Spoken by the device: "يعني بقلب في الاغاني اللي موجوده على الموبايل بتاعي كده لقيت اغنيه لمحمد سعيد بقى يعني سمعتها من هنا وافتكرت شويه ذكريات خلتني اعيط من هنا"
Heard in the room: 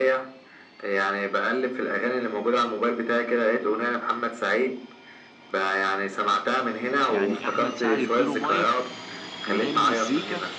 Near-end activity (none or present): present